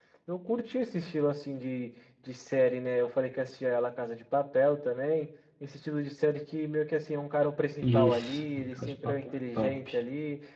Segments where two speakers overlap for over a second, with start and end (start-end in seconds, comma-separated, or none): 7.8-9.7